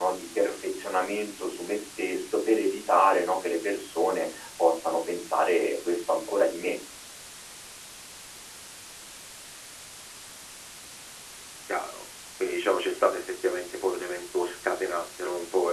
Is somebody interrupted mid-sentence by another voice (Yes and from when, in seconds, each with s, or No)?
No